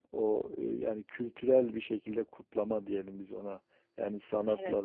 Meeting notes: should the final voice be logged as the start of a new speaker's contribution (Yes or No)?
No